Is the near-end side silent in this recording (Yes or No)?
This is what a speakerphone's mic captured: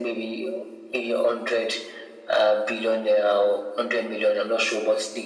Yes